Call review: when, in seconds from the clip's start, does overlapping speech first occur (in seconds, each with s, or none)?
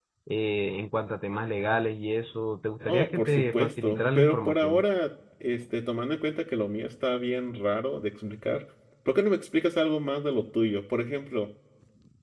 2.8 s